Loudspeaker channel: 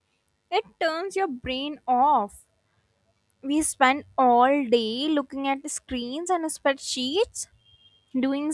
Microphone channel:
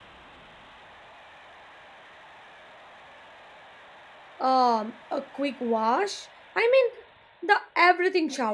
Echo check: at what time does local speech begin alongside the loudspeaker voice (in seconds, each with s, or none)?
4.4 s